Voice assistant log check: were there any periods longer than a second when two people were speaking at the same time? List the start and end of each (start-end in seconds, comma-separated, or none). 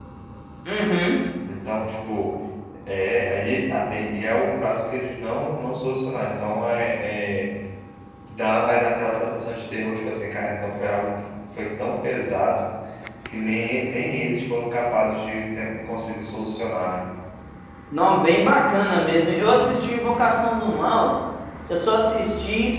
none